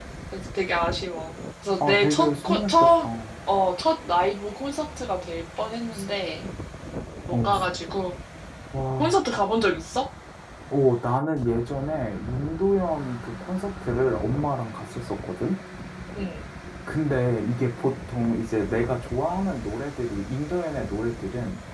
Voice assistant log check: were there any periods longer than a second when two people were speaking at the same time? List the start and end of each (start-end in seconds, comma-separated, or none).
1.9-3.1